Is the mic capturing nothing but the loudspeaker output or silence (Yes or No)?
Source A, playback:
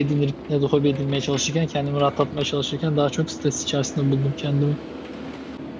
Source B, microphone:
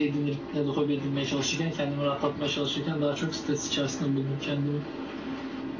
Yes